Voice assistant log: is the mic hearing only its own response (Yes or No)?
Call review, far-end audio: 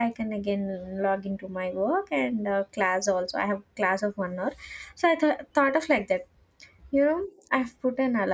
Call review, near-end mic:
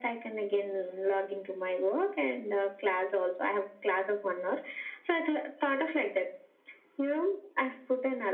Yes